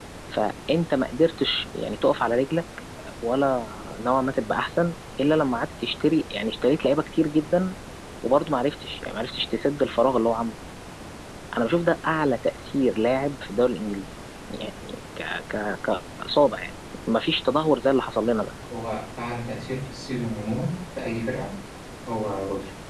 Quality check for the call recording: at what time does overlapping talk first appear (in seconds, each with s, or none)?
none